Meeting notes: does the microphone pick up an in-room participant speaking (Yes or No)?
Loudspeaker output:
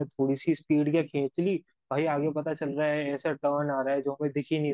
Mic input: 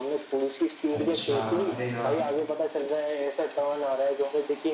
Yes